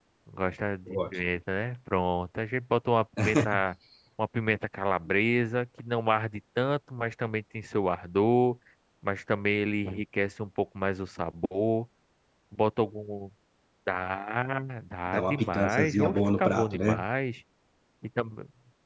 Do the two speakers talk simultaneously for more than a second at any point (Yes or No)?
Yes